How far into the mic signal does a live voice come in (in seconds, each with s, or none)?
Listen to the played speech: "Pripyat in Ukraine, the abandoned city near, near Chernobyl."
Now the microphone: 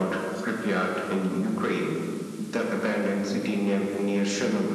none